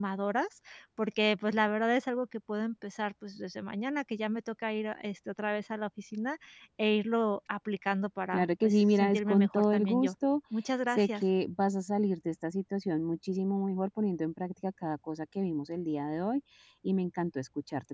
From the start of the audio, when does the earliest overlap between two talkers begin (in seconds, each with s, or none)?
8.3 s